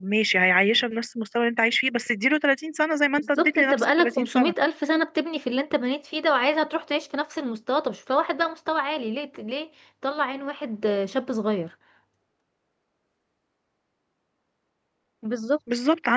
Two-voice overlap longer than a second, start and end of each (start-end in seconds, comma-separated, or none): 3.2-4.5